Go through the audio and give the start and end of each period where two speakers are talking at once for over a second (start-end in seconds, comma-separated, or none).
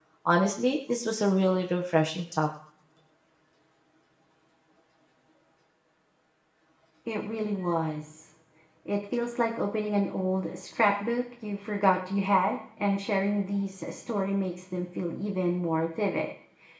none